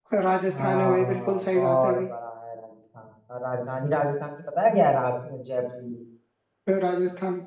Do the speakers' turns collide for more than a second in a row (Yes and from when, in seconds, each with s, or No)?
Yes, from 0.5 s